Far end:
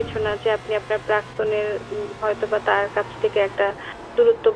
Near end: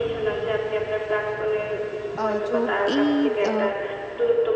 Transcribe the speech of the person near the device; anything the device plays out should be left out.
আ যো এই আ

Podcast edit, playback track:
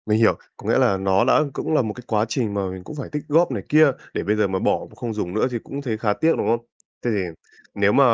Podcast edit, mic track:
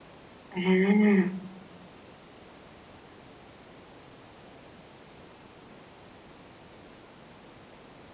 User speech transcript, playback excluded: À,

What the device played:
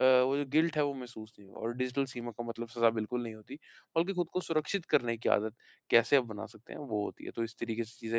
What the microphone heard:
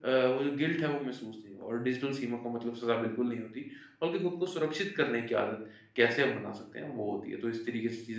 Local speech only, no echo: none

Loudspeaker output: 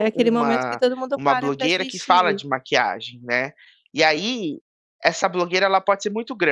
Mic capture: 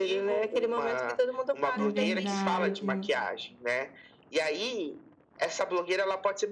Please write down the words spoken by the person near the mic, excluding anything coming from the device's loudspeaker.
É verdade.

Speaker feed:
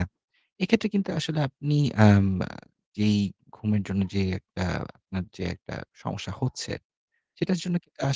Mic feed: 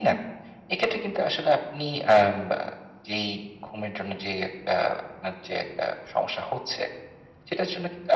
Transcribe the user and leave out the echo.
none

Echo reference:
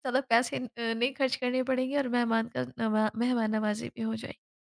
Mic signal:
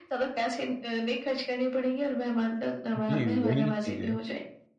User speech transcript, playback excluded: जी, वही चीज़ है।

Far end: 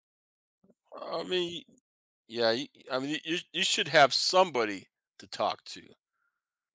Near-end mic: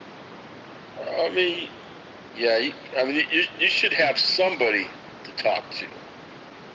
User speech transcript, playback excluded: none

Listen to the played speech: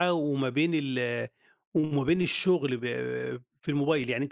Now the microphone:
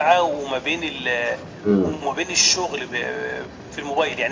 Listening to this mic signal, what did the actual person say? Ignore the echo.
إمم.

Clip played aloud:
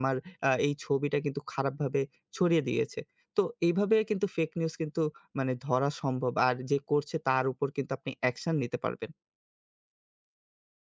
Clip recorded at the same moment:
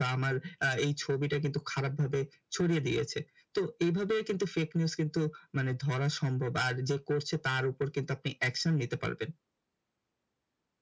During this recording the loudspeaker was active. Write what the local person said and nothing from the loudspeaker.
none

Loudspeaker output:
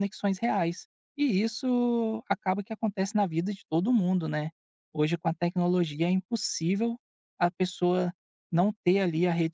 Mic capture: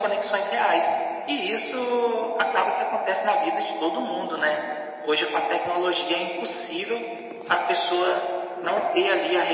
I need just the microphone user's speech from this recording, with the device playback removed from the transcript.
none

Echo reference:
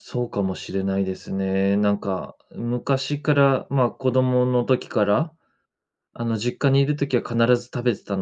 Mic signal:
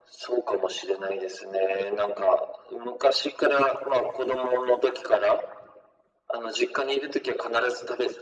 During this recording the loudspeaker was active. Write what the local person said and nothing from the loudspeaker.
none

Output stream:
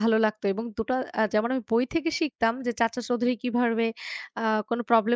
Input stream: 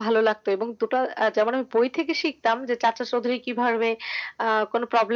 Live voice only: none

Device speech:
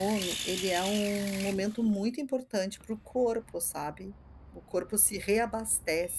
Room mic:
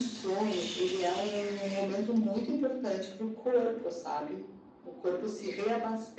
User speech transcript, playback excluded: none

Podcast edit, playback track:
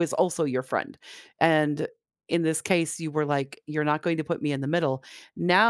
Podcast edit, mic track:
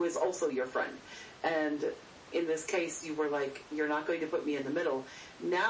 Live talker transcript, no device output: none

